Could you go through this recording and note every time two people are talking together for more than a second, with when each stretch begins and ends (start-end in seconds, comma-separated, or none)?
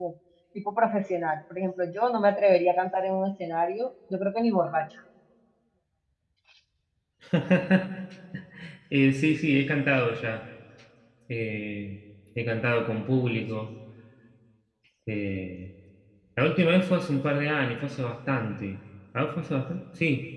none